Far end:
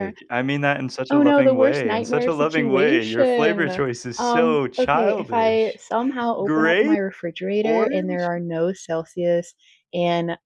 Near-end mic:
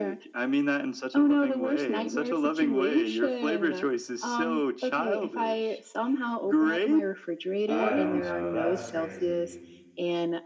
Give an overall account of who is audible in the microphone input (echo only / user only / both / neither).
both